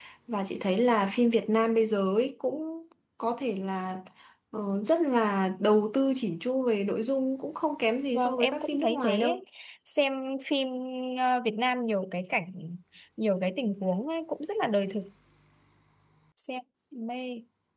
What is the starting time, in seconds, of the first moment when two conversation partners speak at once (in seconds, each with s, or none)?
8.1 s